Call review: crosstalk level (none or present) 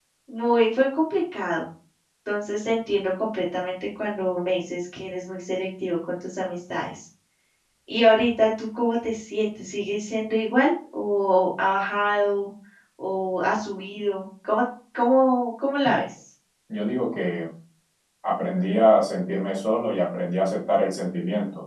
none